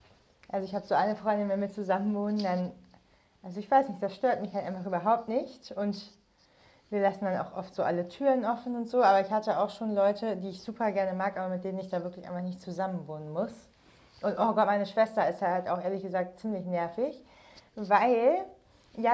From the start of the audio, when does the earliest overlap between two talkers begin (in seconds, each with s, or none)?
none